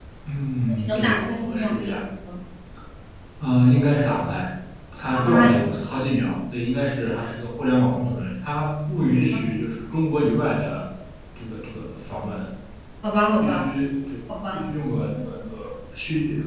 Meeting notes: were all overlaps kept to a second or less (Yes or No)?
No